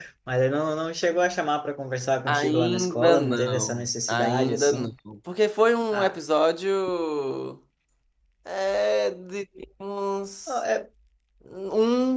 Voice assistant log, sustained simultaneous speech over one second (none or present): present